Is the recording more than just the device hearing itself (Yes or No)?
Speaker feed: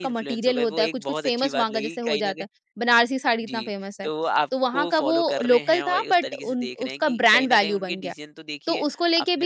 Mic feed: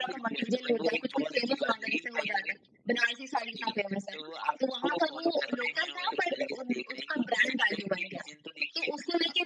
No